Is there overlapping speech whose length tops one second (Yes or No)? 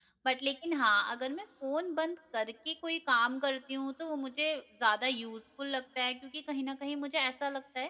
No